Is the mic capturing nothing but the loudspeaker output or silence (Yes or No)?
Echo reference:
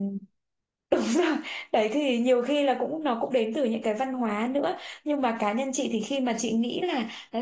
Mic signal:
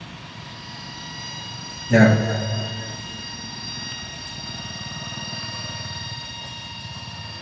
No